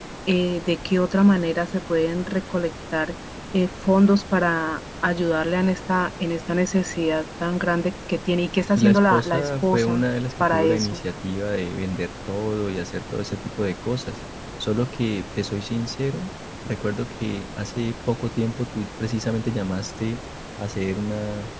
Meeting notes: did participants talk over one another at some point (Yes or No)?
Yes